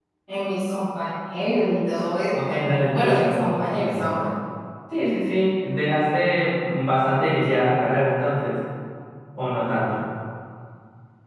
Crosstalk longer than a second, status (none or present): present